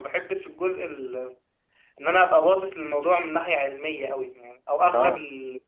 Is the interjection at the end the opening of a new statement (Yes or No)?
No